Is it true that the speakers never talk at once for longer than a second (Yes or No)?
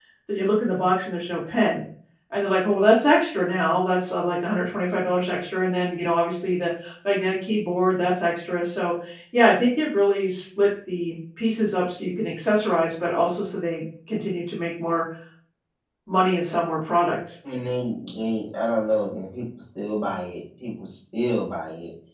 Yes